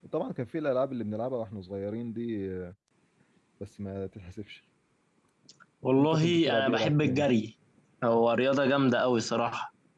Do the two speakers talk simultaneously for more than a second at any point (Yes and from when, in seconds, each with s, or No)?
Yes, from 6.0 s